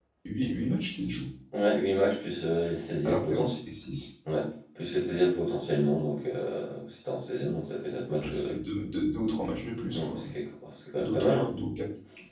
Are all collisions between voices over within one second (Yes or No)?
Yes